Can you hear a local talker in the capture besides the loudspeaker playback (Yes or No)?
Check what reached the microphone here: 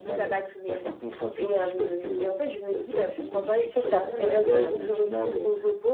Yes